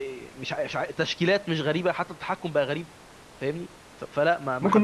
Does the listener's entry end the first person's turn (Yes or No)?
Yes